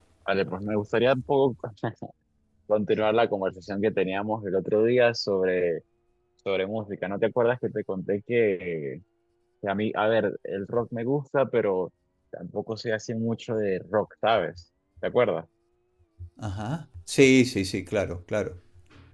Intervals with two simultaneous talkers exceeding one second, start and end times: none

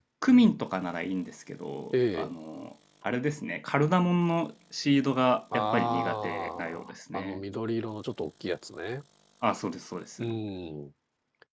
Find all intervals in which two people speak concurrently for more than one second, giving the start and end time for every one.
5.5-7.4

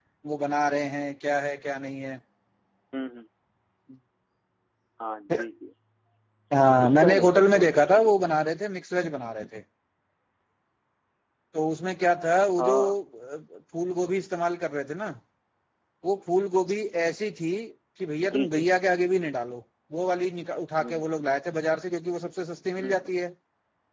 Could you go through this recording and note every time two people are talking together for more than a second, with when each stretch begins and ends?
6.8-8.1

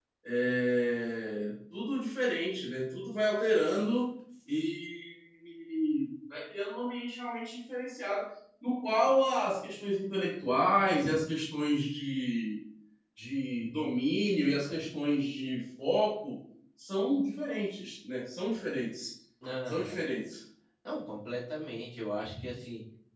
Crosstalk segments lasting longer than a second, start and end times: none

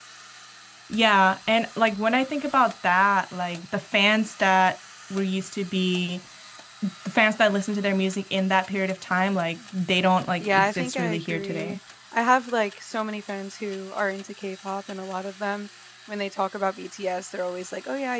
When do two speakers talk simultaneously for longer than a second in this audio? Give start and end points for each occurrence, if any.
10.4-11.8

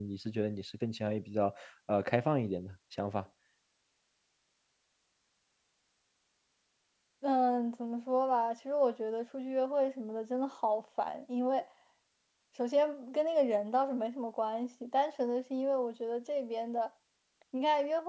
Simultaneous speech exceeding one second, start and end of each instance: none

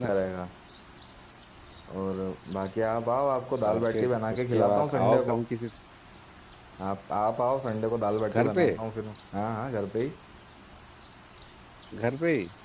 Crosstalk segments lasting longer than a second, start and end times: 3.7-5.4

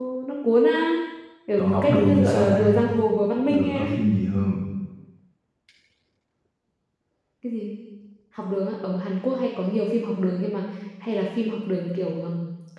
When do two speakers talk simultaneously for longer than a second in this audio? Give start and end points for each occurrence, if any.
1.6-2.8

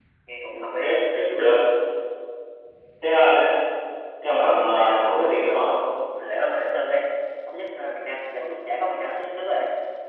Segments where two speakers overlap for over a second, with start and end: 4.4-5.7

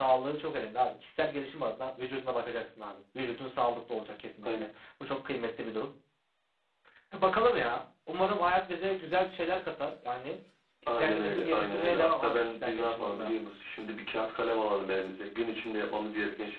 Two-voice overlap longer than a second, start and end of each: 10.9-13.3

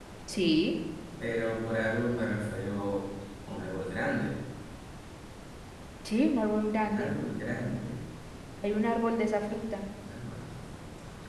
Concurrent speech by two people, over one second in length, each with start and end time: none

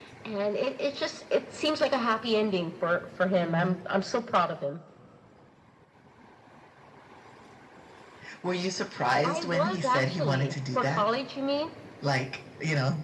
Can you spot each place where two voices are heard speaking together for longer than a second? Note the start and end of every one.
9.2-11.0

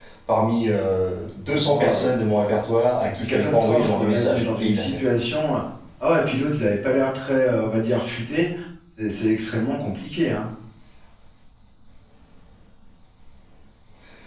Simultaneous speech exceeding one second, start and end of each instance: 3.2-4.8

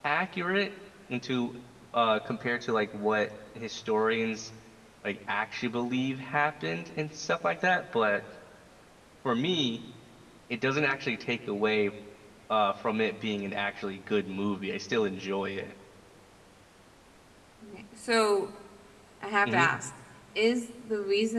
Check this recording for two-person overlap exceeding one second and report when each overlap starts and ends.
none

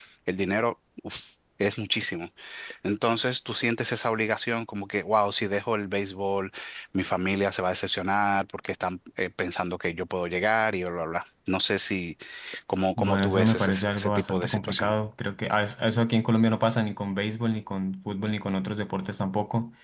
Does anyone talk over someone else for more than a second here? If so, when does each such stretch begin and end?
13.0-14.9

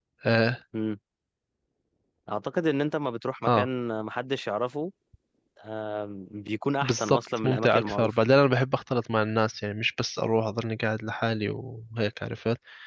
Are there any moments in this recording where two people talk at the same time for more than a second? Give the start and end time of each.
6.8-8.1

